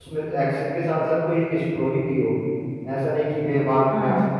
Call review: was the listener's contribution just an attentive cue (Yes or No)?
Yes